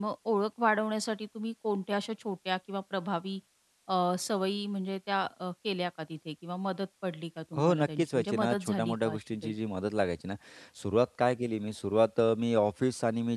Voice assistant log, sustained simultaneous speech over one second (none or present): present